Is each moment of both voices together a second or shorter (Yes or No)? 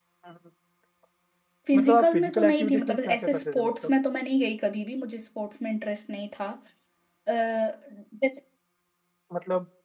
No